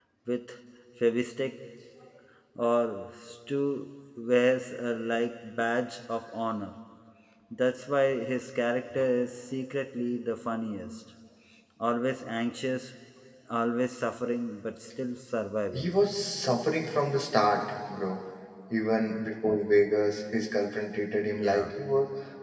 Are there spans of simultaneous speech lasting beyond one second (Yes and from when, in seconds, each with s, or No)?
No